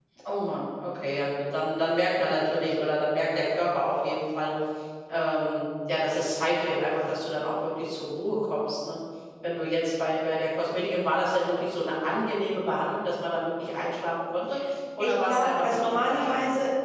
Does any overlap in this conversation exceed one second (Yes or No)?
Yes